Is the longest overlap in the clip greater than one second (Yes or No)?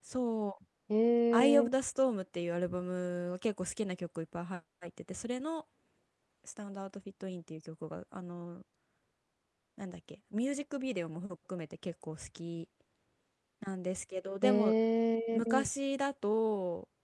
No